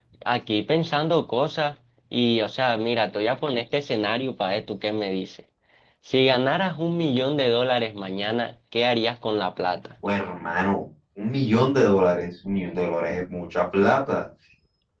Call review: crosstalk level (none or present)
none